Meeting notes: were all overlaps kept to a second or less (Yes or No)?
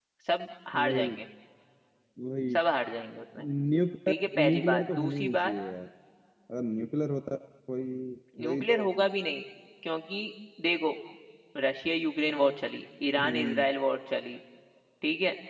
No